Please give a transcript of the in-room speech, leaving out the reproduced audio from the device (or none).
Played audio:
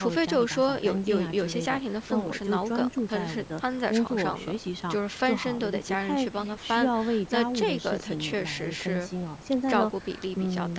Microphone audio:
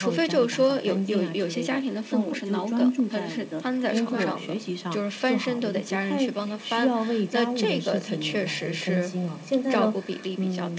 明白，